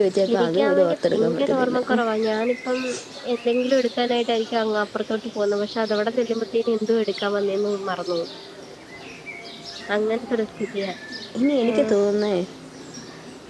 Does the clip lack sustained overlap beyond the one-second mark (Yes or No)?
No